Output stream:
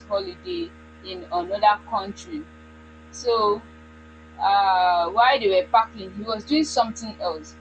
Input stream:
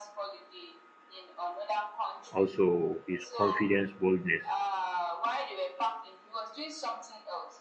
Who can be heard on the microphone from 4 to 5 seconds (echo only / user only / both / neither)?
both